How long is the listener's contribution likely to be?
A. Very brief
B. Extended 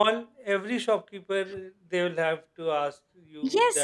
B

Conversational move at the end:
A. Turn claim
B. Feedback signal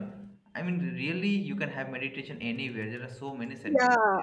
A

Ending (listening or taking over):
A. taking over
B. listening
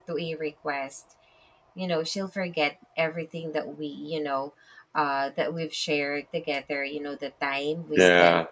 B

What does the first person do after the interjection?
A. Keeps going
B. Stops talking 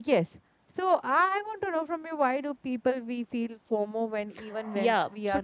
B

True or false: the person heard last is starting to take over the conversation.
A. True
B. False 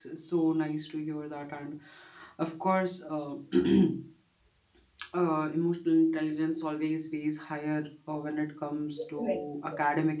B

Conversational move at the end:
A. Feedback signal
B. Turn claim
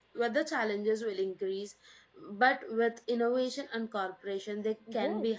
B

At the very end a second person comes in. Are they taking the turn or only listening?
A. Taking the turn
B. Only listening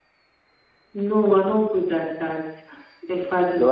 B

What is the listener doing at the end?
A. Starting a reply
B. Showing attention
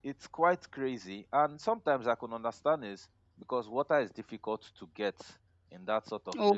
B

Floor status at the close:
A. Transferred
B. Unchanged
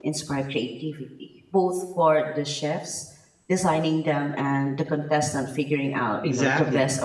A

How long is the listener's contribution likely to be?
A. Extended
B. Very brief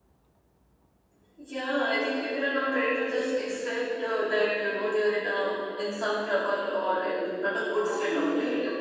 A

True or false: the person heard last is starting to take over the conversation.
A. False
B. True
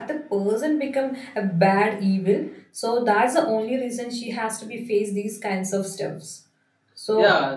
B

